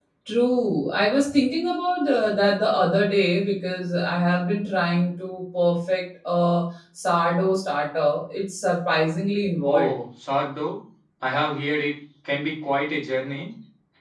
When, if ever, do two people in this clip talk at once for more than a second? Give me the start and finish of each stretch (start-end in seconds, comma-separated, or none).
none